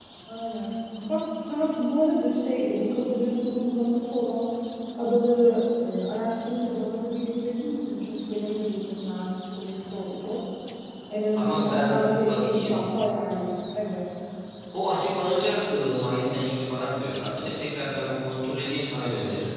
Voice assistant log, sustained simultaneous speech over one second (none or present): present